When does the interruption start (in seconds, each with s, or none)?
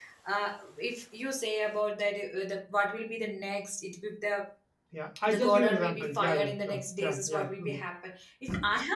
5.3 s